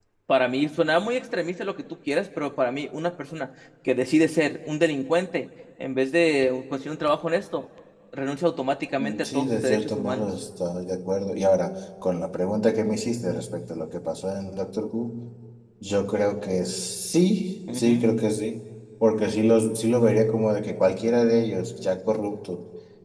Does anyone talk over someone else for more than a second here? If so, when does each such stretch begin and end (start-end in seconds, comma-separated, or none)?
9.0-10.3